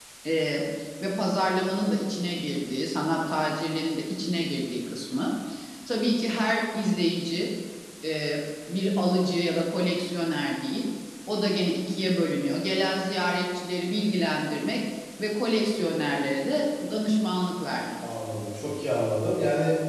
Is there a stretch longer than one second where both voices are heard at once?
No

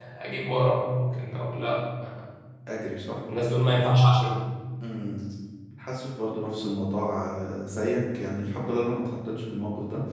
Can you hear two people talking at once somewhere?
No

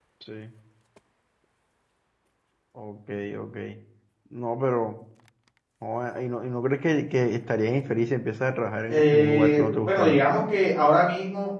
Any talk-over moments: Yes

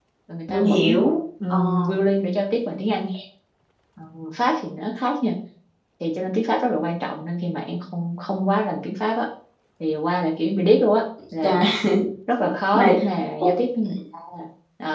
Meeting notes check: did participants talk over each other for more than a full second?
No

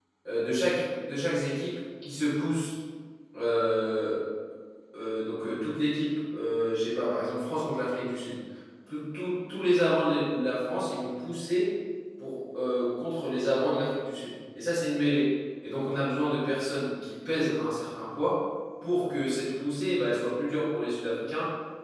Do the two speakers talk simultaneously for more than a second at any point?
No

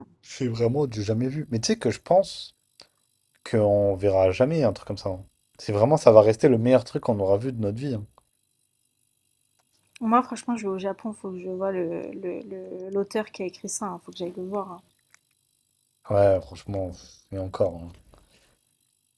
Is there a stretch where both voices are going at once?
No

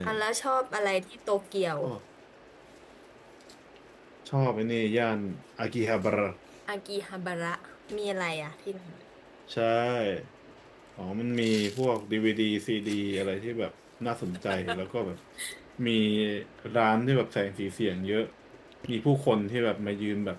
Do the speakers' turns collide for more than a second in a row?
No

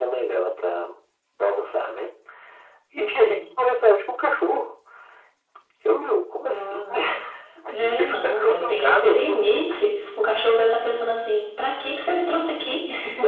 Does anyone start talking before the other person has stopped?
Yes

